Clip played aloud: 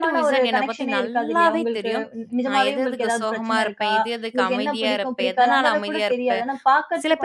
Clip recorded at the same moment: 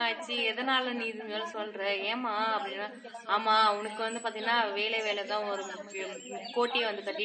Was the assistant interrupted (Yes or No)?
Yes